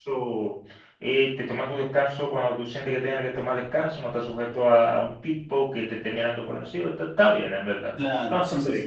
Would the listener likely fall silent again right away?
No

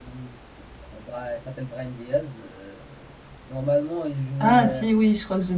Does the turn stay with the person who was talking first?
No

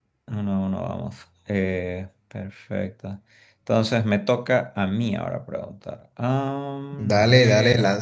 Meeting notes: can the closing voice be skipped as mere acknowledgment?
No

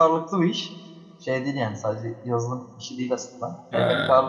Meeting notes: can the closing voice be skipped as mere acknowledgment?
Yes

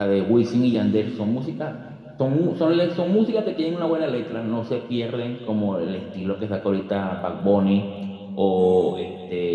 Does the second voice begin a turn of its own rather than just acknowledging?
No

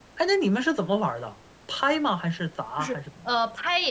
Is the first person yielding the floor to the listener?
Yes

